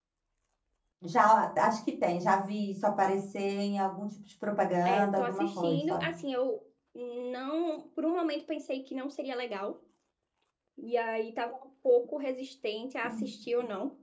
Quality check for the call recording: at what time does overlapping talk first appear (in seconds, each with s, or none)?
4.8 s